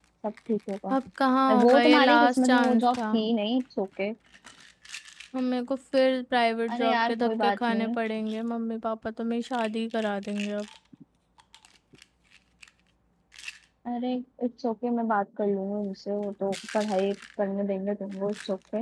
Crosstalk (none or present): present